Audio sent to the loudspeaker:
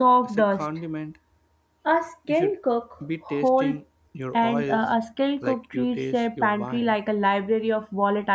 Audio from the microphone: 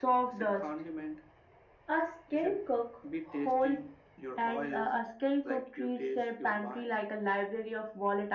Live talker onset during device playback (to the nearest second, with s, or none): none